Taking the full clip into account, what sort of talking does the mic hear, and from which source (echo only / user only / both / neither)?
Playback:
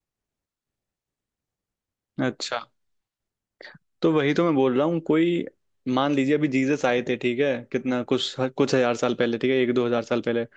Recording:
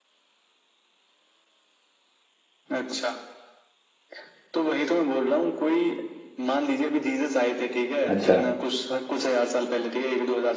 both